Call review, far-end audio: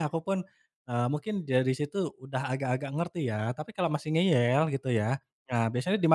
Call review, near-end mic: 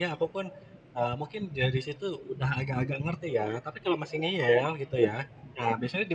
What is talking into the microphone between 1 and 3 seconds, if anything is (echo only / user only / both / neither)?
echo only